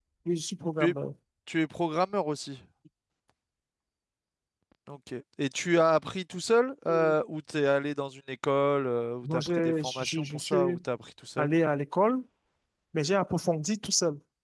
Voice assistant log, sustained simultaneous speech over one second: present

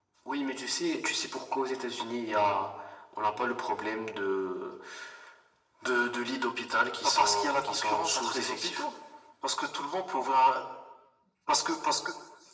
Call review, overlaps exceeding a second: present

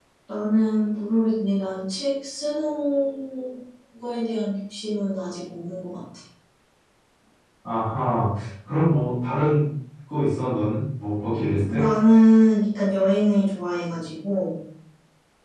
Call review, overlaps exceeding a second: none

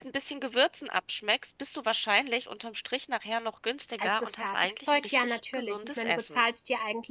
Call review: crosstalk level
present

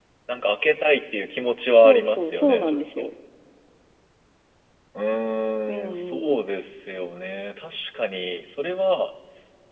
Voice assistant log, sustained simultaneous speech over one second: present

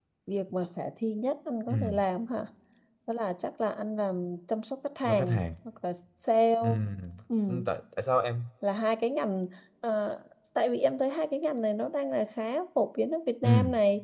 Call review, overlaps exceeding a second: none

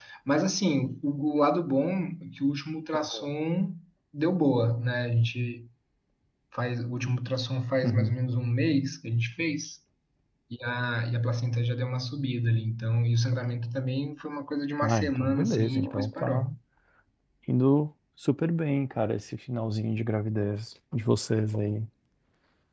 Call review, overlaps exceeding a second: present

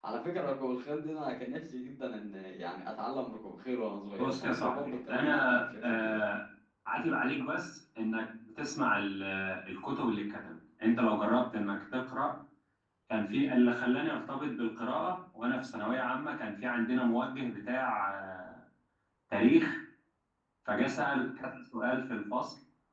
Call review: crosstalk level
present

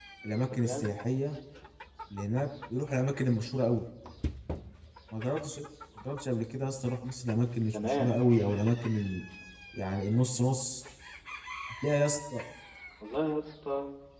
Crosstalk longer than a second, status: none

